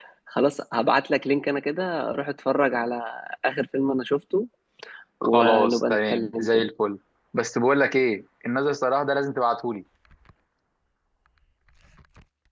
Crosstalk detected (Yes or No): Yes